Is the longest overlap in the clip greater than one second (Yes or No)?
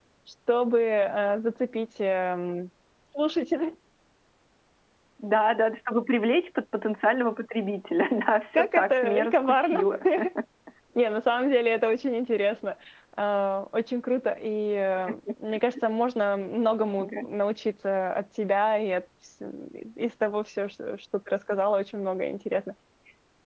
Yes